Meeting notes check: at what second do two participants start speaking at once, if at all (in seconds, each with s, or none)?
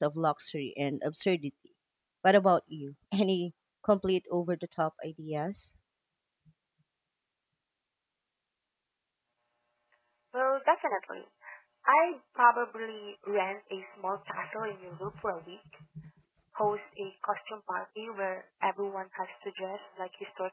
none